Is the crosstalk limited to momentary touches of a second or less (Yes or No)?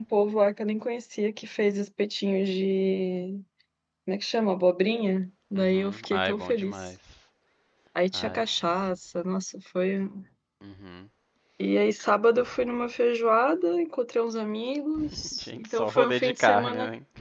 No